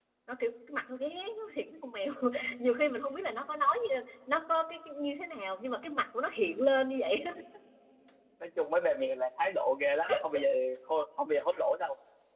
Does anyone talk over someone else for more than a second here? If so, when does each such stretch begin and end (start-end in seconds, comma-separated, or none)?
none